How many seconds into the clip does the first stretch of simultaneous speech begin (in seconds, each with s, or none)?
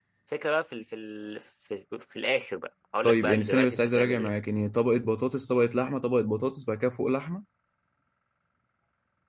3.0 s